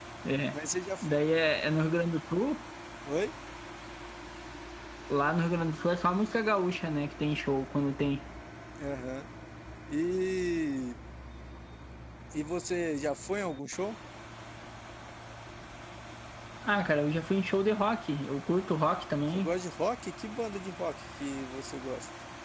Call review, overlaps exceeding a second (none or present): none